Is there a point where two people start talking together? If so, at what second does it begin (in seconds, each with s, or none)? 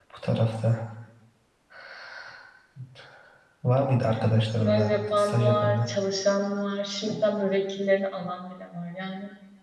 4.6 s